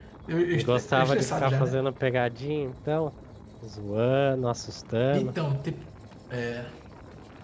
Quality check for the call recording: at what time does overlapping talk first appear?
1 s

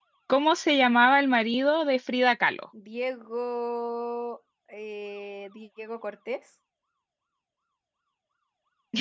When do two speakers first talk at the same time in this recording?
none

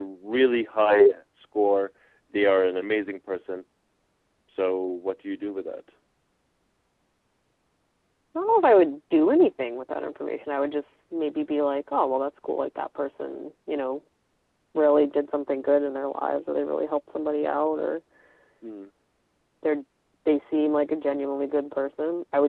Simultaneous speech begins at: none

